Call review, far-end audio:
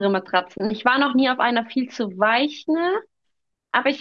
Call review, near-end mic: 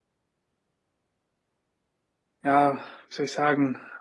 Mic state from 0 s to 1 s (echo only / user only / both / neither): neither